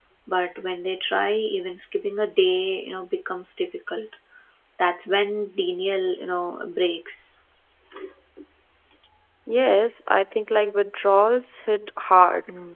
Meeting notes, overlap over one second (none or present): none